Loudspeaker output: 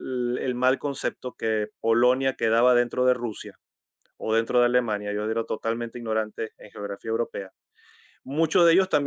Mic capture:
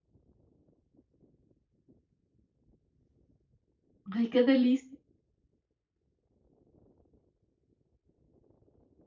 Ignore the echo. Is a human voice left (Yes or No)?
Yes